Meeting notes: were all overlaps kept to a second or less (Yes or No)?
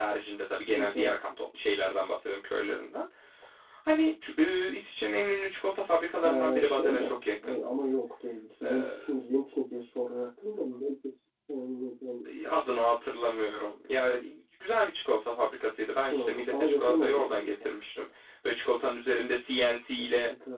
No